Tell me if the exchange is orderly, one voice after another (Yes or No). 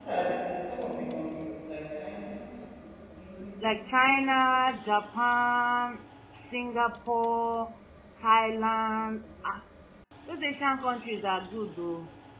Yes